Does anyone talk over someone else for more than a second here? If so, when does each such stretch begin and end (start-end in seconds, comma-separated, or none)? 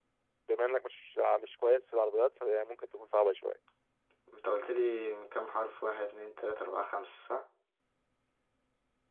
none